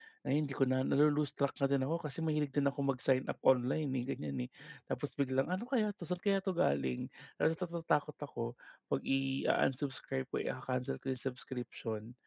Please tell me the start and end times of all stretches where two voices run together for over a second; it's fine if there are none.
none

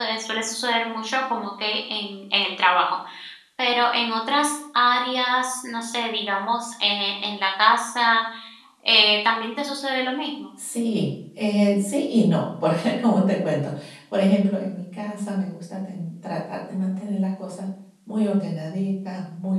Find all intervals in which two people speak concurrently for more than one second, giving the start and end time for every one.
none

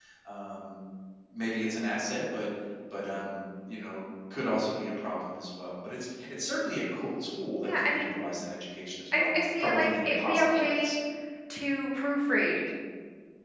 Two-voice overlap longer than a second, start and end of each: 9.1-11.0

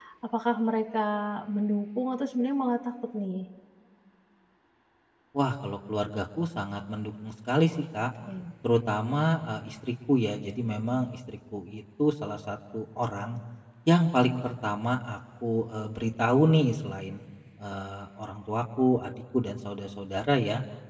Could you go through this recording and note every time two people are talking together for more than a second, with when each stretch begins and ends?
none

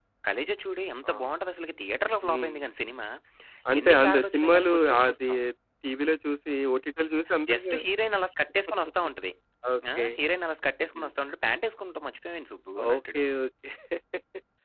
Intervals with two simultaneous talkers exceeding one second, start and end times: 3.8-5.3

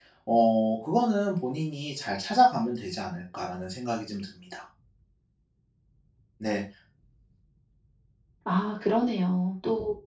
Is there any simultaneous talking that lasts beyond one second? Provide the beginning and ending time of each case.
none

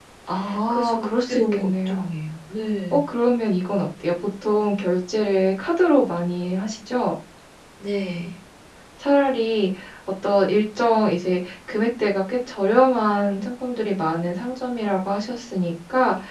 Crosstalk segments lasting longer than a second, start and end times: 0.7-2.0

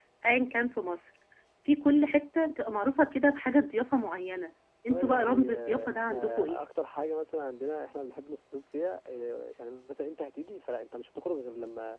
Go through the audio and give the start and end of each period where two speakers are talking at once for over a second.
4.9-6.7

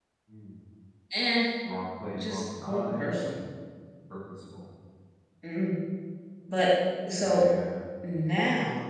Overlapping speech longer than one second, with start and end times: 2.1-3.4

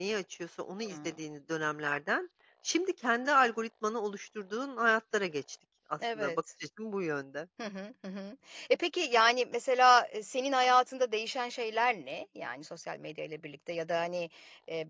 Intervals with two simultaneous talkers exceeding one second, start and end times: none

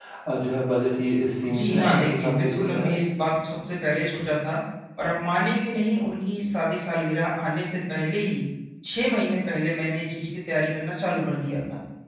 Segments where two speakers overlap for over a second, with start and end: 1.5-2.9

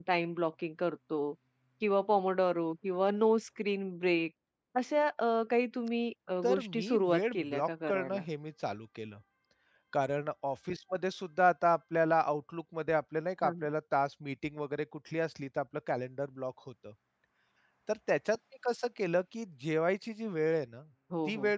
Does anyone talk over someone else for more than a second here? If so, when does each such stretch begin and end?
6.4-8.2

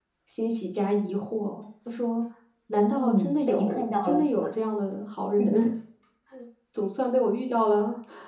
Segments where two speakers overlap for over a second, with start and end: 2.9-4.4

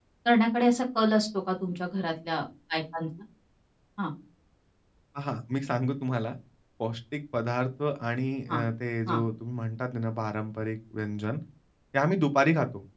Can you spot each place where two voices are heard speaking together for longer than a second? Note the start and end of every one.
none

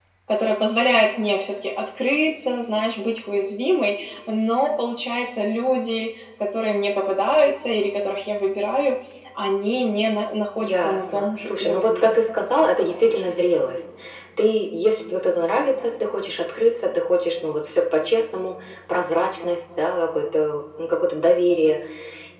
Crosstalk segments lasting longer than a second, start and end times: 10.6-12.2

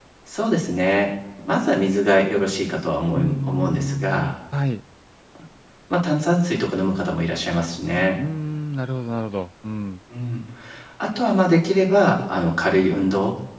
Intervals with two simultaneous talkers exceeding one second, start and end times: 3.1-4.3

